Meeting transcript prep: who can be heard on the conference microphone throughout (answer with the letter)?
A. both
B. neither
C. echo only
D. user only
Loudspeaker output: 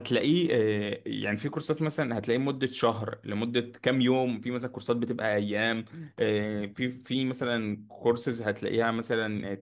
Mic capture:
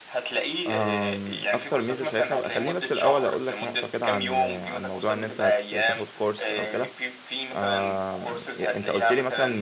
A